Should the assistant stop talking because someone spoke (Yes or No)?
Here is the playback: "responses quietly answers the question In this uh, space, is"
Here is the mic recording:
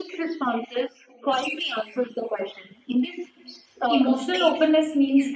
Yes